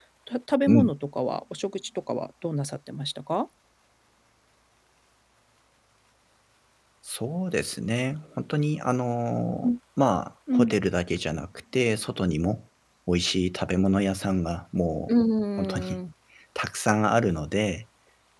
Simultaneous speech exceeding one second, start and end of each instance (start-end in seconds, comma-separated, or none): none